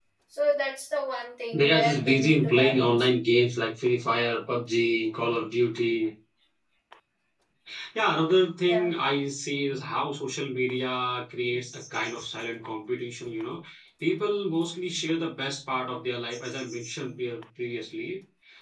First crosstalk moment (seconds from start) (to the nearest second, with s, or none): 2 s